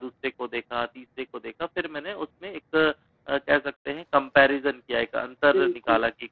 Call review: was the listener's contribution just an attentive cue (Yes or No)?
Yes